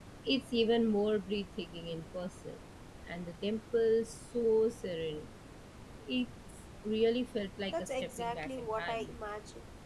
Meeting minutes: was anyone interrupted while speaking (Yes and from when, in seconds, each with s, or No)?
Yes, from 7.7 s